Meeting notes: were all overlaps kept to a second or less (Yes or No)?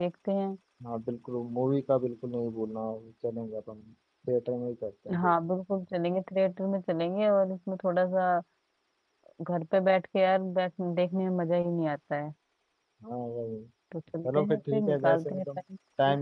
No